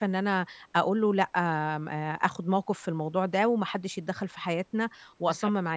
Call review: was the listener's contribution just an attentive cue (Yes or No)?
No